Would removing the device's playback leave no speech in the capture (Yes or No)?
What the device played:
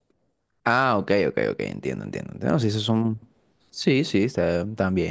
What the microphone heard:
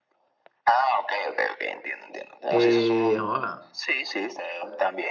No